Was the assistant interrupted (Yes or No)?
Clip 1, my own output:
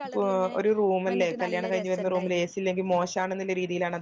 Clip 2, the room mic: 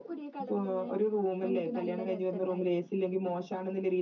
No